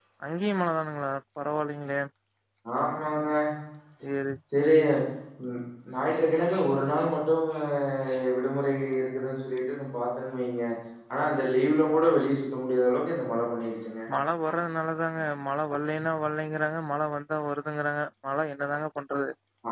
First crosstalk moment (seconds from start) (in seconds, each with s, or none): none